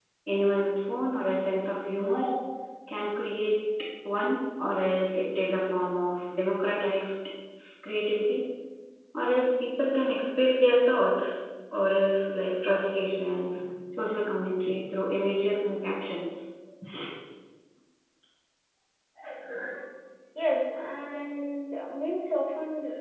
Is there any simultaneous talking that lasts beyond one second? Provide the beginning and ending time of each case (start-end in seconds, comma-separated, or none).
none